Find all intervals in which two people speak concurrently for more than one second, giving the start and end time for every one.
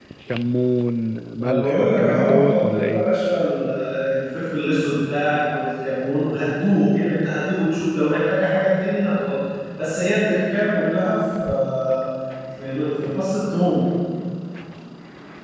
1.4-3.1

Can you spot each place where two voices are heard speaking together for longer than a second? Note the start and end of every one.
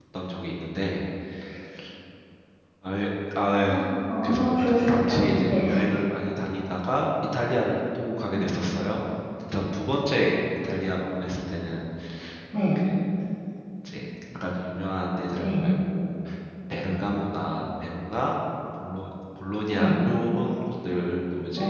4.2-5.6

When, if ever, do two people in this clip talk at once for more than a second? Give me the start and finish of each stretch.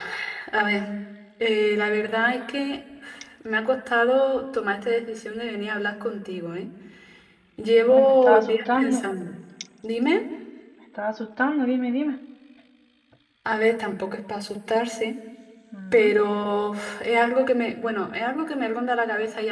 7.9-9.1

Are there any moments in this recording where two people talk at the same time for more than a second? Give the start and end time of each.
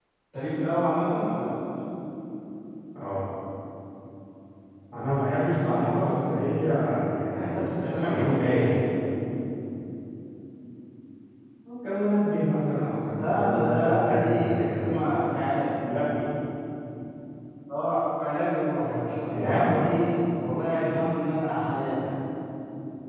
7.3-8.7, 13.2-15.0

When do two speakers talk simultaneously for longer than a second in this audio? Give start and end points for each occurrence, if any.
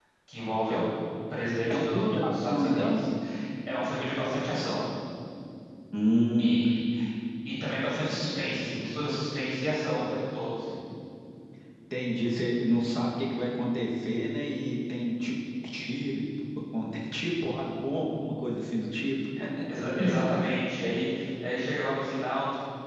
1.7-3.0

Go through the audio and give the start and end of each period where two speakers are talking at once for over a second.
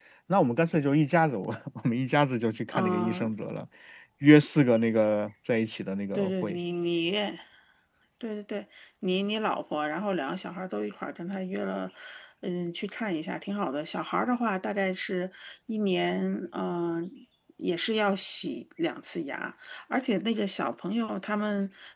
none

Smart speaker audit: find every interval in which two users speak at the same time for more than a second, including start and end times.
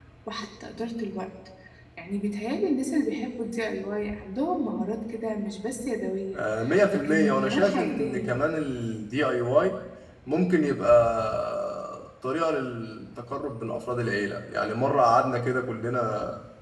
6.9-8.3

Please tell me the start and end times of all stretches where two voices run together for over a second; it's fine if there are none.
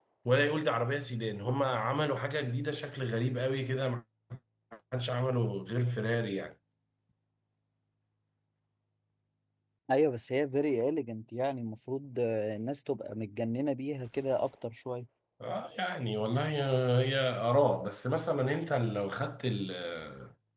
none

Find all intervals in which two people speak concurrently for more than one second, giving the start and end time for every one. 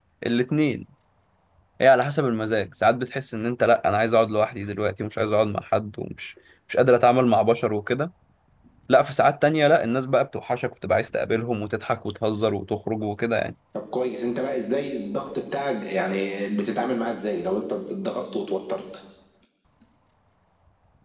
none

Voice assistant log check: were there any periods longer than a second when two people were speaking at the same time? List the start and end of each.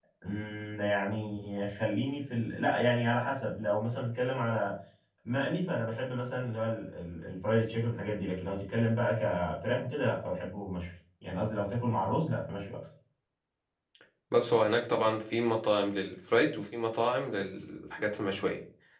none

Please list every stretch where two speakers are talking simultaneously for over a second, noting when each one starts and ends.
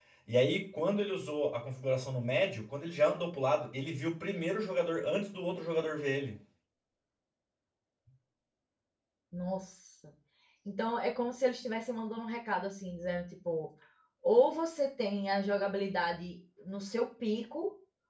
none

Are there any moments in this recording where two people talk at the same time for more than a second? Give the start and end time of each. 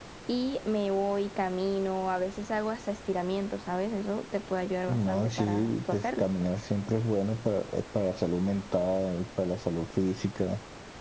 4.9-6.3

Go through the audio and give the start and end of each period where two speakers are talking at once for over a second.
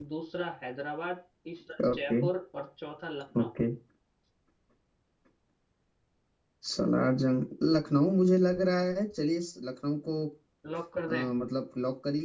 none

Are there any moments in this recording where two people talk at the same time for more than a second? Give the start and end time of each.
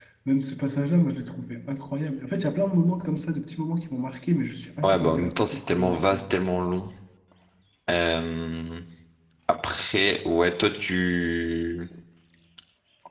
4.8-6.3

